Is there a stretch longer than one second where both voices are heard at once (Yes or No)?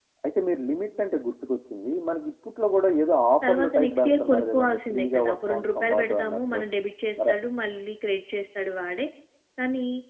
Yes